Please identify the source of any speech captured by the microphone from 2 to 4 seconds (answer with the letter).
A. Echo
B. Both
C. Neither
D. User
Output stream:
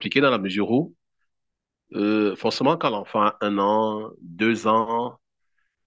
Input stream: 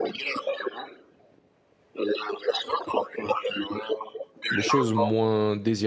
A